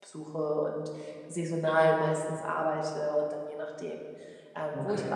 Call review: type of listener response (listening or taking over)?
listening